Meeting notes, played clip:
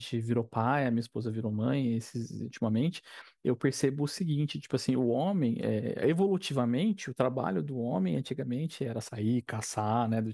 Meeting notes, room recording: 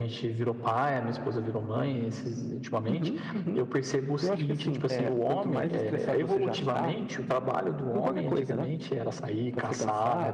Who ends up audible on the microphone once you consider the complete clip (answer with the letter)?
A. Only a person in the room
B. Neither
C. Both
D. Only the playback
C